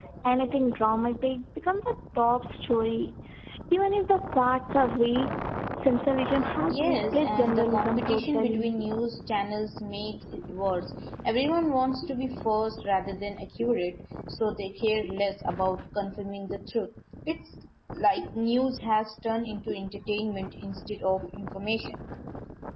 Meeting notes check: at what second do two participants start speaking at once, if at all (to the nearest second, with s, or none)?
7 s